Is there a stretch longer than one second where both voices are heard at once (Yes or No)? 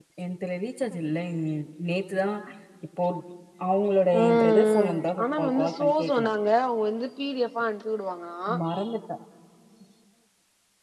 Yes